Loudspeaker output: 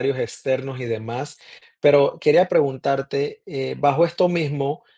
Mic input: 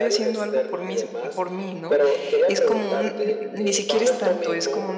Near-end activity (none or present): present